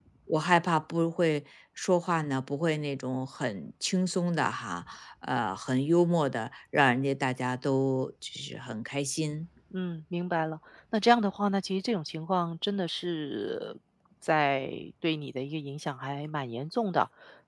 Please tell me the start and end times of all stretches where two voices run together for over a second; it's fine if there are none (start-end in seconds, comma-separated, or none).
none